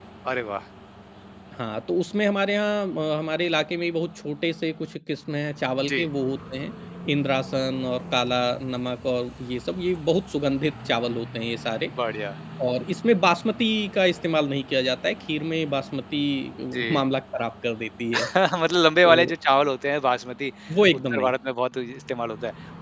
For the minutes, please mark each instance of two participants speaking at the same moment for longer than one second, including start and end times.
none

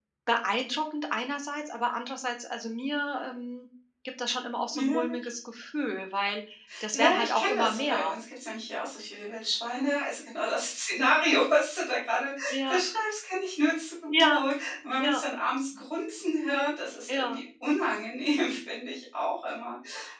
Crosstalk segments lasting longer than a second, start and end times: 6.9-8.2

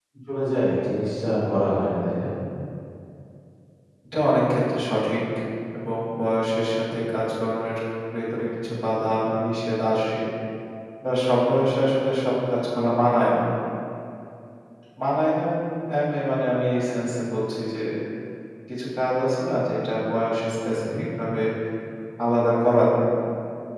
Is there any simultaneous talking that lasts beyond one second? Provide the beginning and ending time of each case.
none

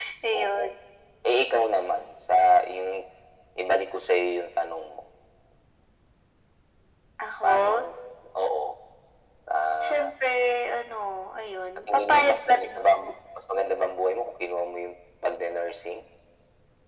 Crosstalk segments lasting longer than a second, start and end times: 11.9-13.1

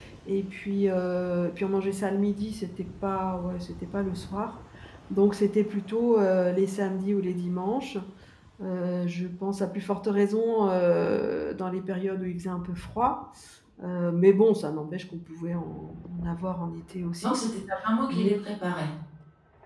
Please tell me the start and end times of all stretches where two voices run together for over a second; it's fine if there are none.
none

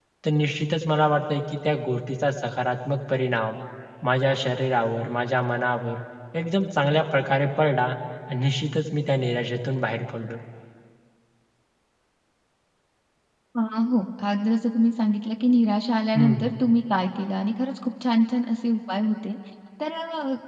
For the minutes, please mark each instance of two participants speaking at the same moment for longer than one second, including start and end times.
none

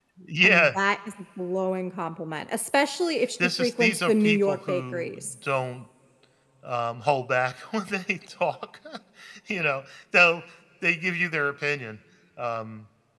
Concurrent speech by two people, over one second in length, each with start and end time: 3.4-5.3

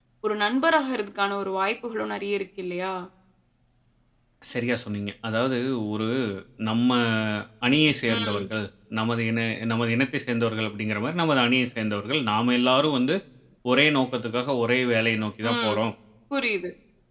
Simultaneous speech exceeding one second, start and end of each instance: none

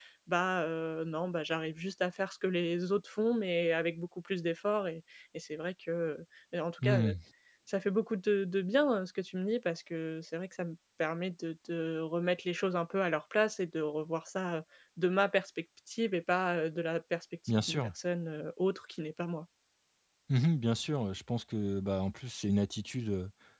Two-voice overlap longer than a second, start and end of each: none

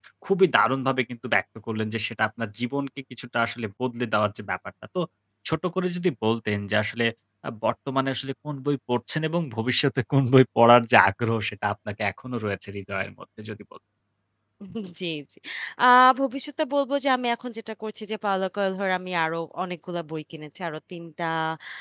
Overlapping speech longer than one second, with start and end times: none

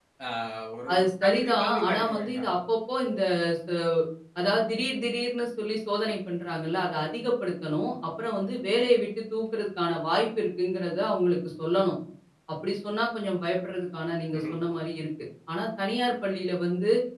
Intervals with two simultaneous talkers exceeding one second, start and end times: 0.9-2.5

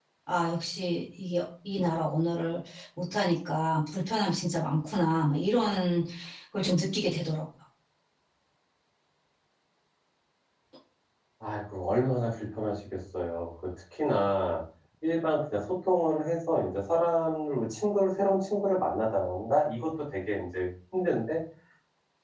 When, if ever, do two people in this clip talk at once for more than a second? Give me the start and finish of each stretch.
none

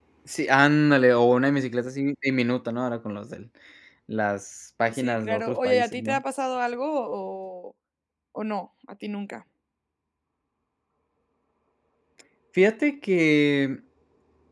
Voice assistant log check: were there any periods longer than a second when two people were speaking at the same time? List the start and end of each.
4.9-6.2

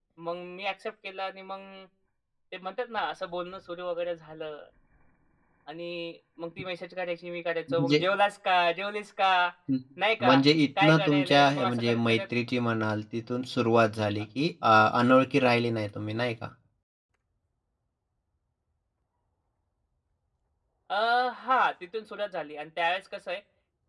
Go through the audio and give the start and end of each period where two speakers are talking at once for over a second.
10.8-12.2

